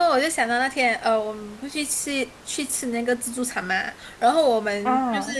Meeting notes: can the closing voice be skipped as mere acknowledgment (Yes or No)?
Yes